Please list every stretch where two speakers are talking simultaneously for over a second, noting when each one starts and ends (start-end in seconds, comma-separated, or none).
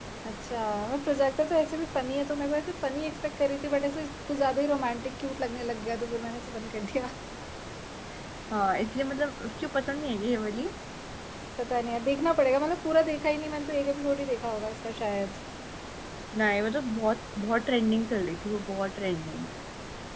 none